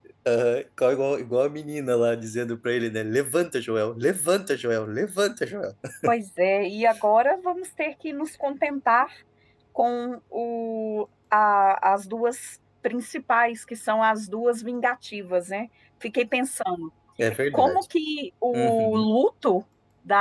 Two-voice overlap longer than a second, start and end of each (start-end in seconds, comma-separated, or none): none